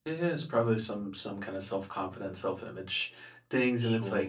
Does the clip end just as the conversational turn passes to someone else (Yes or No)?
No